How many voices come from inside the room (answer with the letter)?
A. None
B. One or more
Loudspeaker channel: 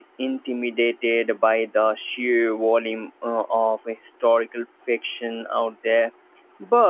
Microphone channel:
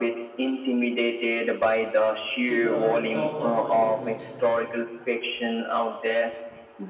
B